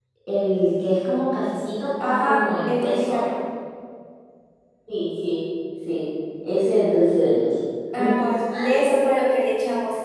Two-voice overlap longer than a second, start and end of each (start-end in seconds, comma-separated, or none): 2.0-3.2